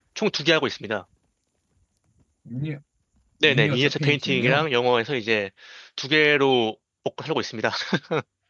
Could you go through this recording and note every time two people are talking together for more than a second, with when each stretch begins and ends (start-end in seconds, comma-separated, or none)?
3.4-4.6